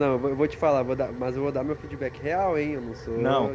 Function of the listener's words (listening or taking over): taking over